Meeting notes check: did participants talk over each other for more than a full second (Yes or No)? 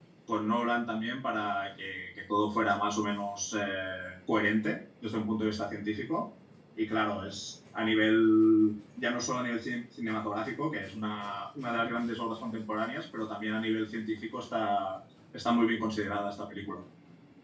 No